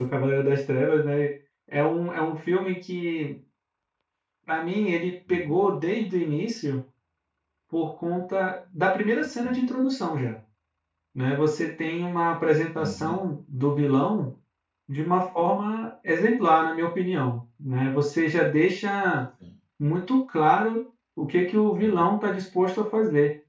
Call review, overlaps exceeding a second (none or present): none